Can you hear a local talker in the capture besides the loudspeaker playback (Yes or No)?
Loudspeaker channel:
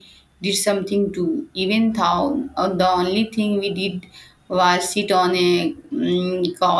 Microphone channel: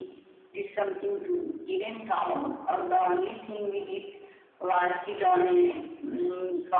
No